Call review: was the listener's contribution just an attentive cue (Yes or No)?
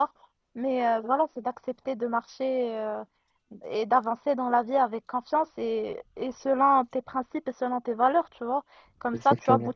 Yes